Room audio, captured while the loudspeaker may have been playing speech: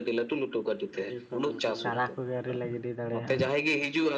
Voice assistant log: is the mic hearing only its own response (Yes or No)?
No